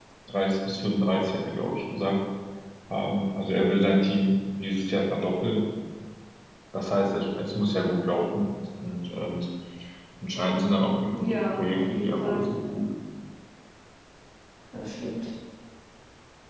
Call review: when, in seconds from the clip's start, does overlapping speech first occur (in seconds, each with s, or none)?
11.1 s